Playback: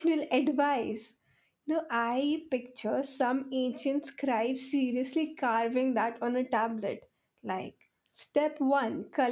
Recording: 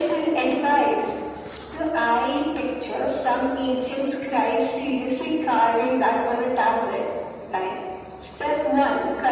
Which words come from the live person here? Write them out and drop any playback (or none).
none